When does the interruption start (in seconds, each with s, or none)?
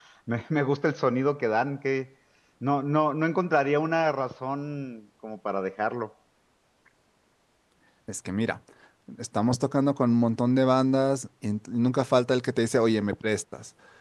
none